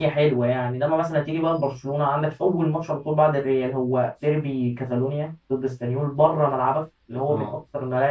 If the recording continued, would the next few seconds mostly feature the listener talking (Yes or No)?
No